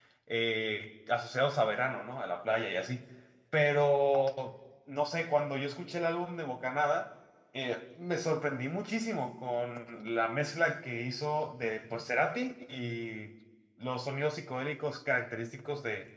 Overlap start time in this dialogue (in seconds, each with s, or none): none